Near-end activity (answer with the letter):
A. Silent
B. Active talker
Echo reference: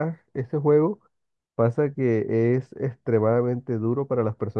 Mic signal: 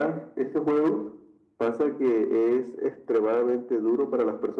A